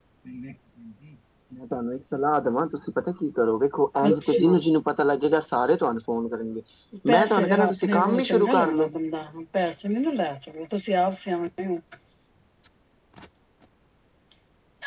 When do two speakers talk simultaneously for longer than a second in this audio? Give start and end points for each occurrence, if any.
7.1-8.9

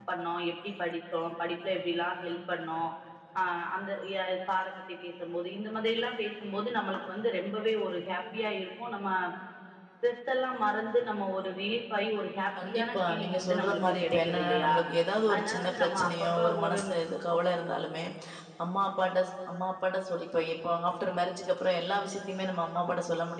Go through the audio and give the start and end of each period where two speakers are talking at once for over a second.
12.6-14.7, 15.3-17.0

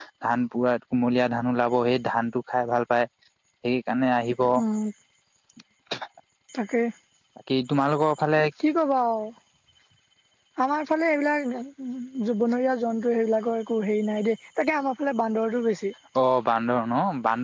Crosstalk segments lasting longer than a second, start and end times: none

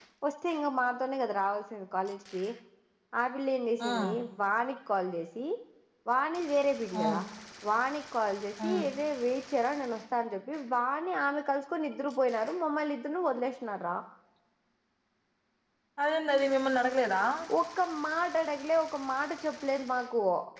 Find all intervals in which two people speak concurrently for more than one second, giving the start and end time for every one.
none

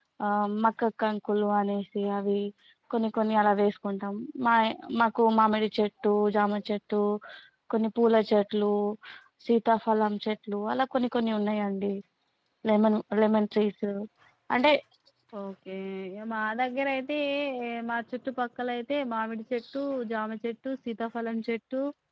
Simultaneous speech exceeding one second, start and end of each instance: none

